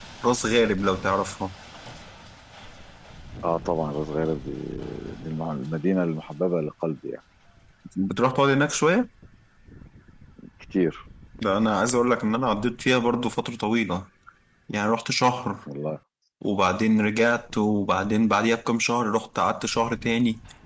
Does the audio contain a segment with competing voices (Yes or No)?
No